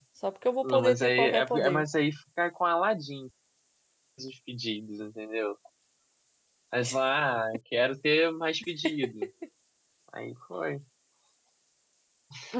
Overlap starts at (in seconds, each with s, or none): 0.6 s